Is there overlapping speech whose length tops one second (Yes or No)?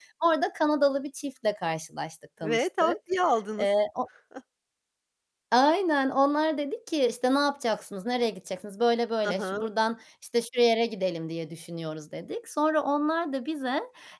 No